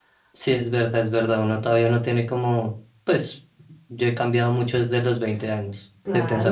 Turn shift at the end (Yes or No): Yes